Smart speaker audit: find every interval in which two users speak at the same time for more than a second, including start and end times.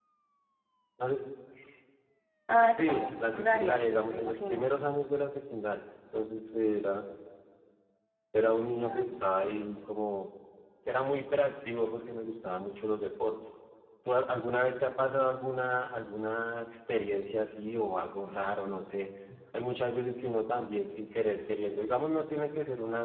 2.6-4.7

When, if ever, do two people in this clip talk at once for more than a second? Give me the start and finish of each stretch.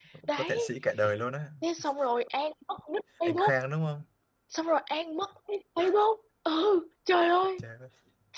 none

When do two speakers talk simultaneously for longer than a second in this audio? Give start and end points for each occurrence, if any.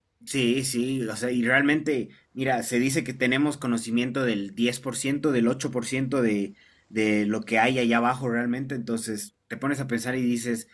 none

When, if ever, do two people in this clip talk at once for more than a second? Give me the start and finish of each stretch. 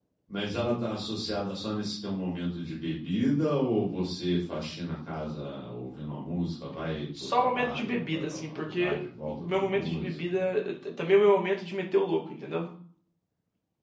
7.3-10.4

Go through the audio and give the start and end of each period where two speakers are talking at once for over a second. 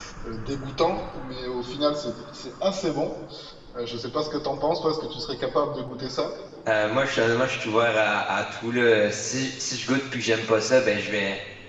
none

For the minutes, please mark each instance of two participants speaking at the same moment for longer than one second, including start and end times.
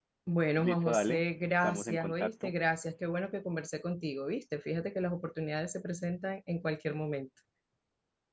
0.6-2.5

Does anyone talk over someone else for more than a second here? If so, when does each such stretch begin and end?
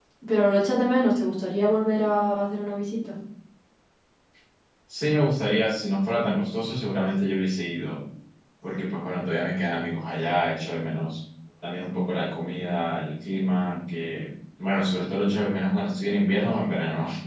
none

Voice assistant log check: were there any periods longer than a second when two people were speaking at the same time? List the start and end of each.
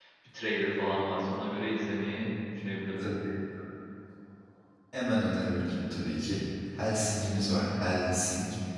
none

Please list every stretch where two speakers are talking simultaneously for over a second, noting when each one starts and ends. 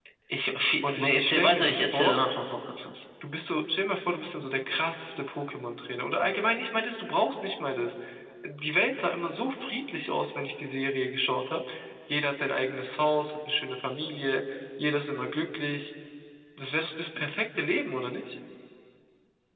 0.8-2.2

